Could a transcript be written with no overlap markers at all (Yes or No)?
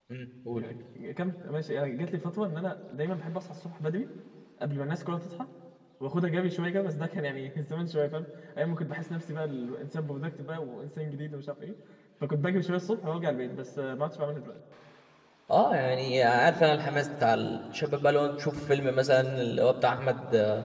Yes